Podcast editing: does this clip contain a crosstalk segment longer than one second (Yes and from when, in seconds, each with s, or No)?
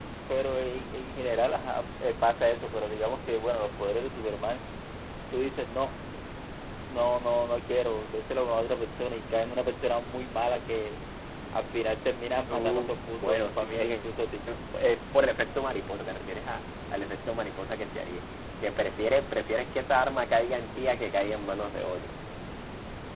Yes, from 12.5 s